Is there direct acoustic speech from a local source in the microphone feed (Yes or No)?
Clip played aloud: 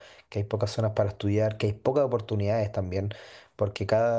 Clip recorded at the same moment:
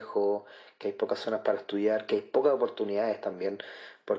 No